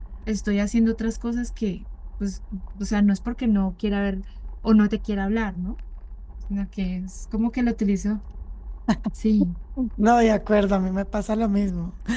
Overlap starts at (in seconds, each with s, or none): none